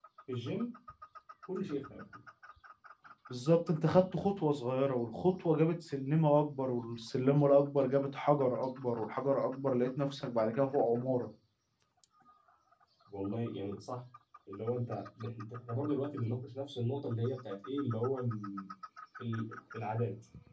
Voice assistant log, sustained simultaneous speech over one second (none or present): none